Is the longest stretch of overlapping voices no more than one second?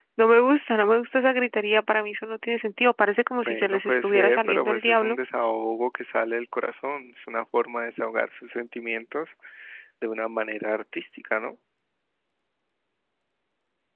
No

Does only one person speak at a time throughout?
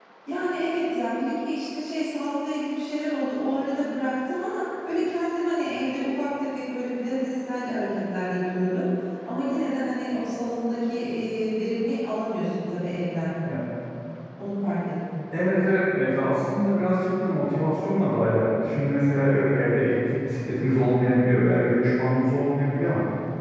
Yes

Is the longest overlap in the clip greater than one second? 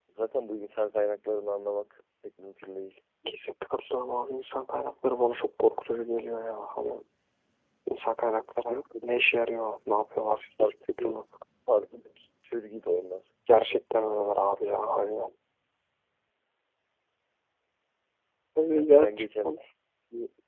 No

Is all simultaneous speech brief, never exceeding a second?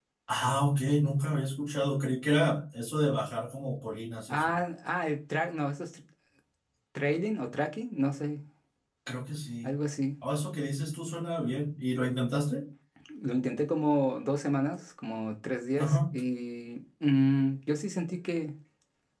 Yes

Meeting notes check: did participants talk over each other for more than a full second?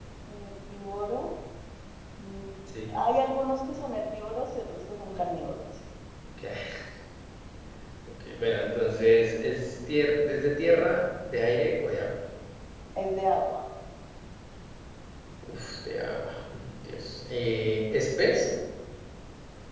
No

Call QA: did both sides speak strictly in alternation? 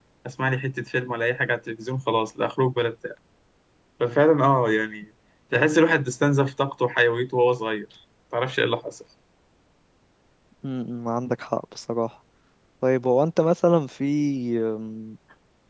Yes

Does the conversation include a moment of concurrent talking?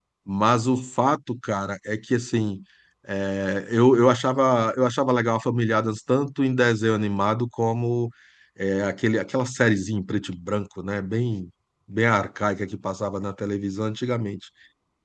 No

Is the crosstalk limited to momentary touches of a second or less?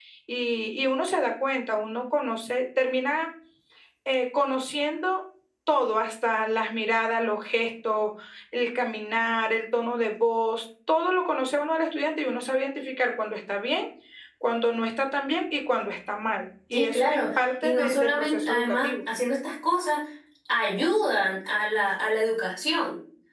No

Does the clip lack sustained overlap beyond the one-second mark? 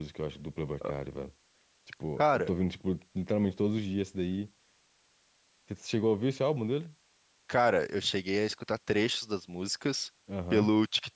Yes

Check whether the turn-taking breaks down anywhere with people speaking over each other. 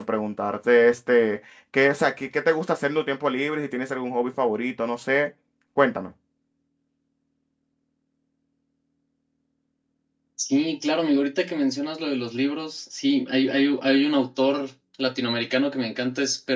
No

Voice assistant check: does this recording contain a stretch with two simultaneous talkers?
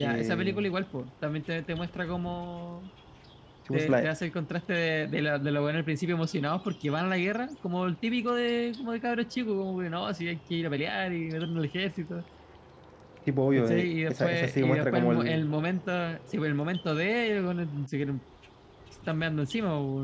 Yes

